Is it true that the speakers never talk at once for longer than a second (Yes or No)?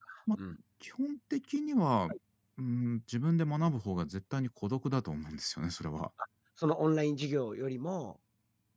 Yes